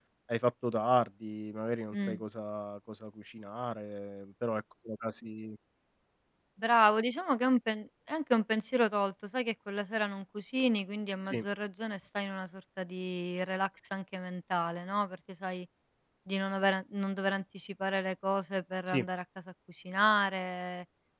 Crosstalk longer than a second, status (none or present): none